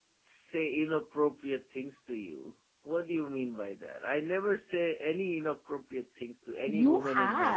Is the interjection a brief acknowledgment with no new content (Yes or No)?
No